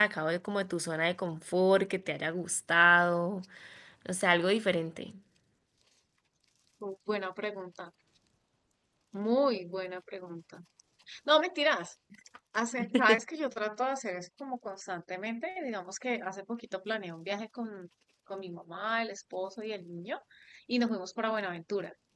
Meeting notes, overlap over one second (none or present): none